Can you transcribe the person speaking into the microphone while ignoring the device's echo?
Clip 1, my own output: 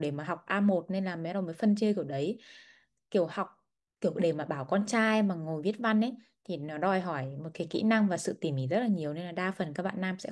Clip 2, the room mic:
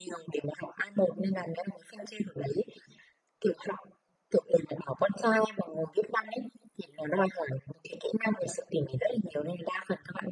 ừ.

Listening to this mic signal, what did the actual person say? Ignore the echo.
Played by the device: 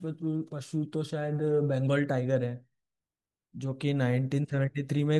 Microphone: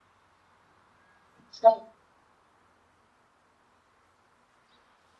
अच्छा

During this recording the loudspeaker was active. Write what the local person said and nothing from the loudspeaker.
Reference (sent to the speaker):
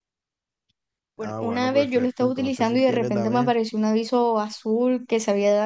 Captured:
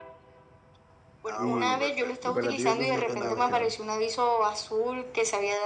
Y, y para ti YouTube es una fuente confiable.

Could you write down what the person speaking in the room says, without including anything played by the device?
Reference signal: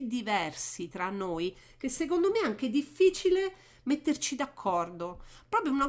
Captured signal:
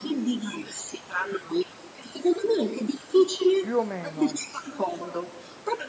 Più o meno.

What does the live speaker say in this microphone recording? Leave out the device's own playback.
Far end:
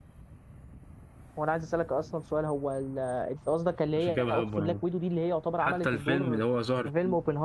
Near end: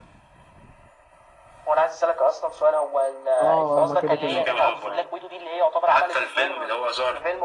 اه آه، ما كده كده

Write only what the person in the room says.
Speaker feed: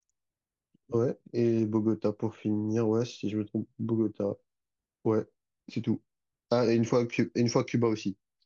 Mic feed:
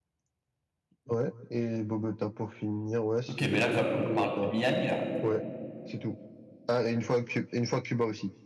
Ok, mais là quand même on parle de Miami là.

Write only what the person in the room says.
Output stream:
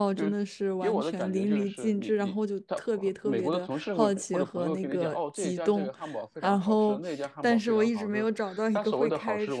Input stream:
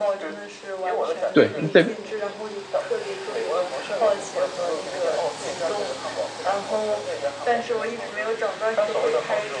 对，这

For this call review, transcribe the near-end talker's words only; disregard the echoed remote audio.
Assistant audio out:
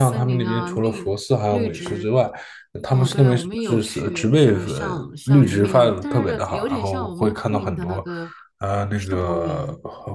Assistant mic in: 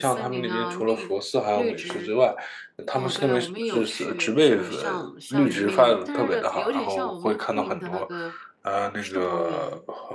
none

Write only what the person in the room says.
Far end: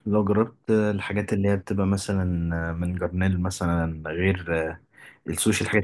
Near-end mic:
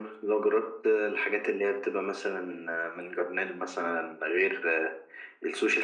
none

